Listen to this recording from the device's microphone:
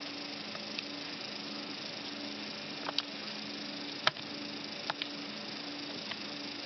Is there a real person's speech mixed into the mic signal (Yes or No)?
No